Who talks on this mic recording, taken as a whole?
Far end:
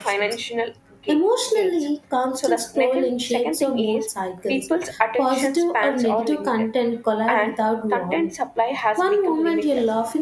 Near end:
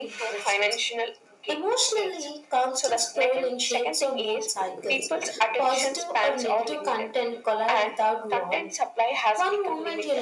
echo only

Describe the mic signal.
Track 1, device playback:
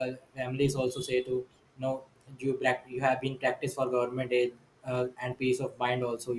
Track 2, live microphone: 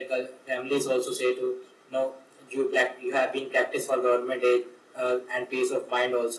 echo only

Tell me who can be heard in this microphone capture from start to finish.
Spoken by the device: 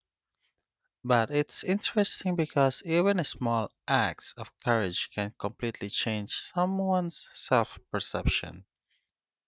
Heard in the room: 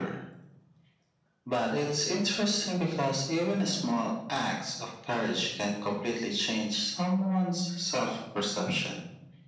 echo only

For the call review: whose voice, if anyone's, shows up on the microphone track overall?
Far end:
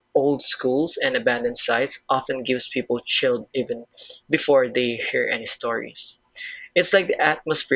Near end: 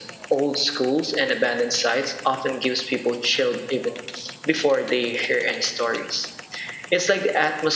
echo only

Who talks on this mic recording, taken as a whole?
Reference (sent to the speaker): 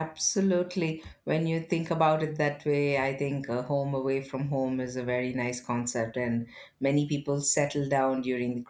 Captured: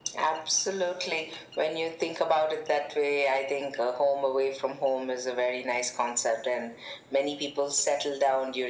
echo only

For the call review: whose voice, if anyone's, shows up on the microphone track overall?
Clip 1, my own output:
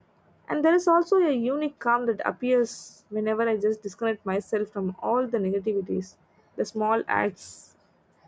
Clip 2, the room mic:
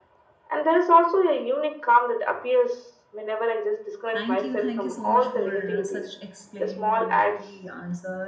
both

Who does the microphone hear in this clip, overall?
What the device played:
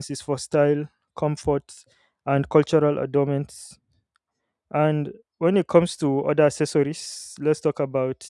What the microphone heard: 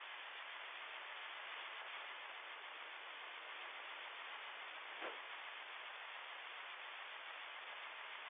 neither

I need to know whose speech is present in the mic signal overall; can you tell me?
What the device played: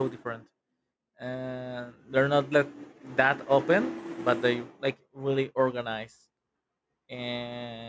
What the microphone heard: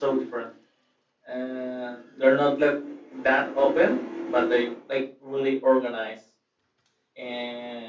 echo only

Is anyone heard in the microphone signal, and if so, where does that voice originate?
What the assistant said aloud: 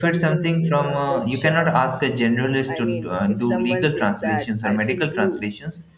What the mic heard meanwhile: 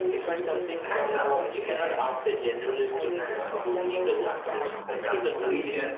both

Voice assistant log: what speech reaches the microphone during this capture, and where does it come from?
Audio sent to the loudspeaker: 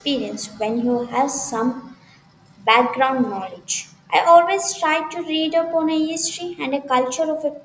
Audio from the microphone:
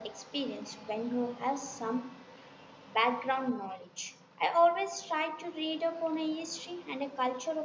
echo only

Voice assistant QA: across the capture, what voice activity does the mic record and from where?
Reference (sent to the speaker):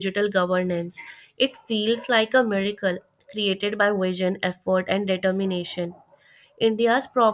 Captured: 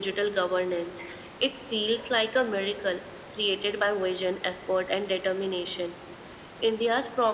echo only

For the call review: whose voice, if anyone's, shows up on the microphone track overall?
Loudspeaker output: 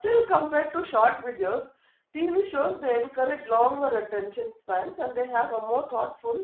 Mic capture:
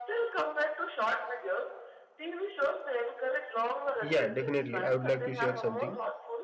both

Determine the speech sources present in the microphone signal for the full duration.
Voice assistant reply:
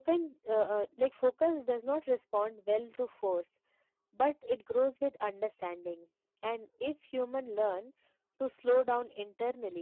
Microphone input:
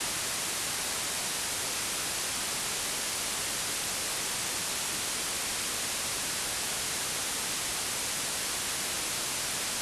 neither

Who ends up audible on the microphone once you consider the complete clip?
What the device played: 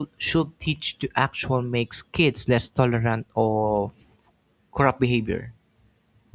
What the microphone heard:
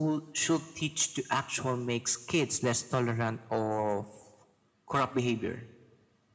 echo only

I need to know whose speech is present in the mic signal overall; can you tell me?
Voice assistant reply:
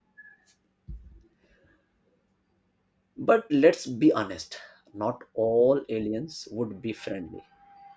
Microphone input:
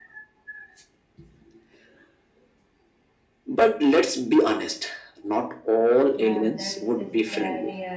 both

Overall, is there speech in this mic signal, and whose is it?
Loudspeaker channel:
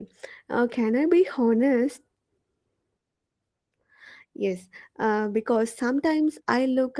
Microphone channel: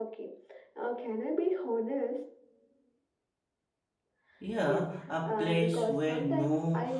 both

